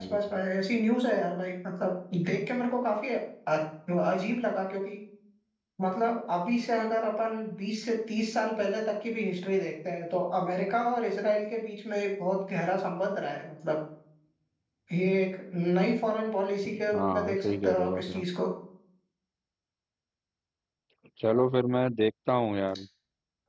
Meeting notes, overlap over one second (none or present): present